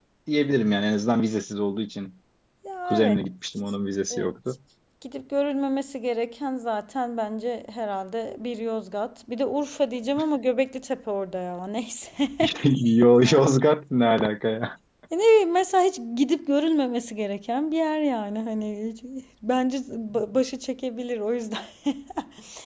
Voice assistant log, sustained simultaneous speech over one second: none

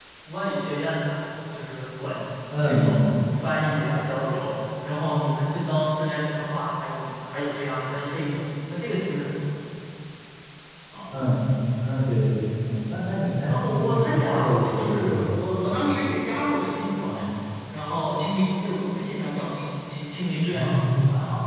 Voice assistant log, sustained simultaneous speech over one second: present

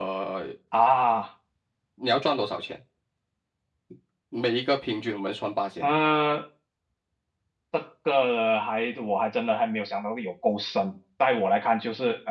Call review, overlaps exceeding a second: none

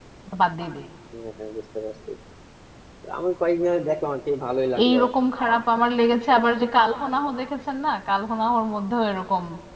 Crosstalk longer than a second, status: none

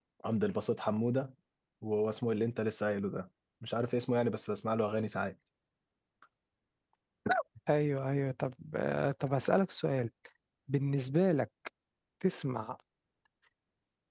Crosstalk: none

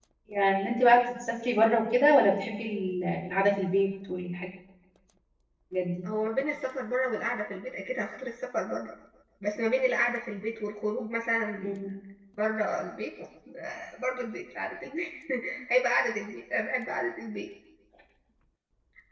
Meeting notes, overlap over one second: none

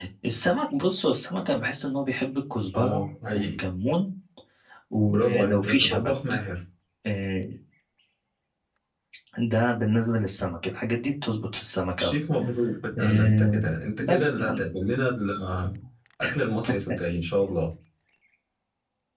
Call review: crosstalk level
present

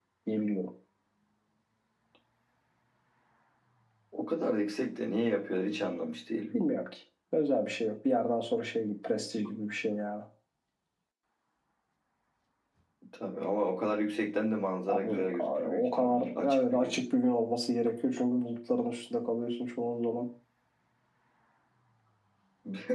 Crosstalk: present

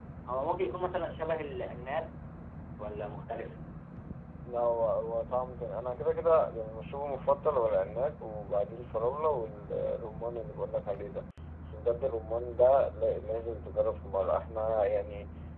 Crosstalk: none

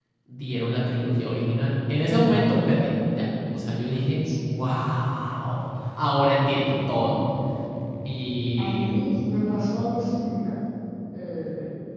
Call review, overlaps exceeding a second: none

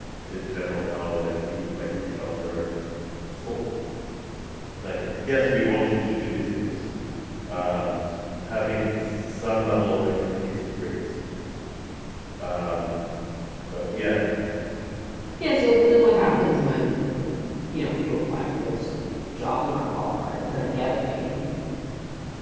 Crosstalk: none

